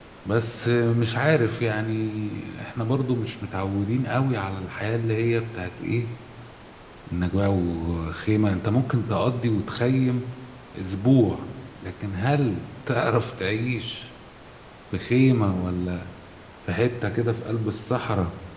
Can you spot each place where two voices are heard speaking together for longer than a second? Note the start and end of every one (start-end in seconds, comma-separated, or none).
none